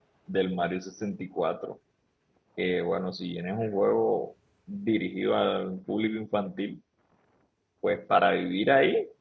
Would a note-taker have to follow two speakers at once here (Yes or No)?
No